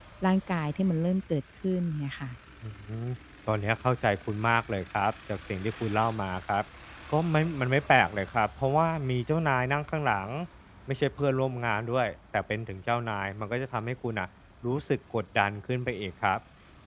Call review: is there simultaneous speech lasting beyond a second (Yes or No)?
No